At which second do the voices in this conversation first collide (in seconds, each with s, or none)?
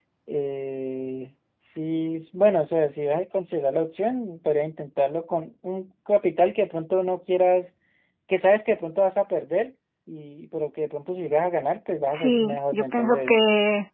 12.1 s